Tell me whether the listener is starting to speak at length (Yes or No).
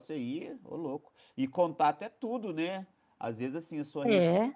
No